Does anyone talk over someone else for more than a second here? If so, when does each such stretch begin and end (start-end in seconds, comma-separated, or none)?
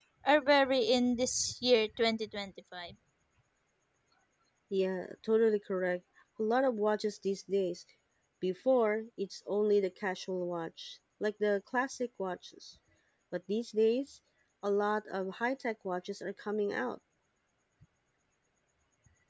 none